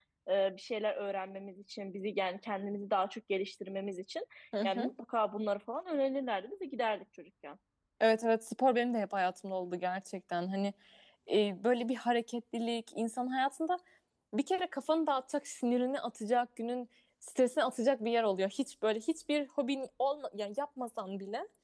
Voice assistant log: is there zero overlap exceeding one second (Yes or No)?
Yes